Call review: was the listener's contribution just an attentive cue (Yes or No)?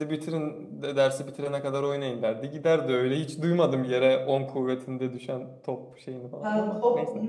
No